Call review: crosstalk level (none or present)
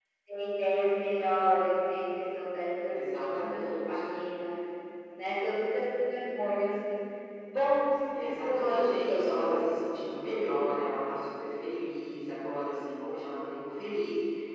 present